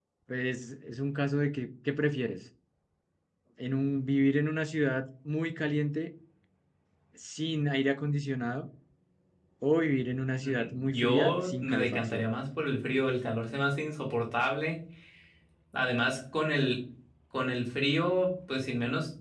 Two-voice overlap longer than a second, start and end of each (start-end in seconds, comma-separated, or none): 10.4-12.3